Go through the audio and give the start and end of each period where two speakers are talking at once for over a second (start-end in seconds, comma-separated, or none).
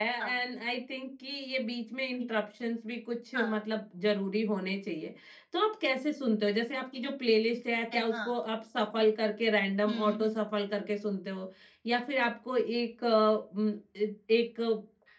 none